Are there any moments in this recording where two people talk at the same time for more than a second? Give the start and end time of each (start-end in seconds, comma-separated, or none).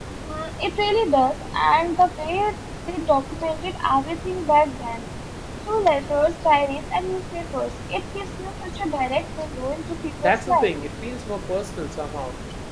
none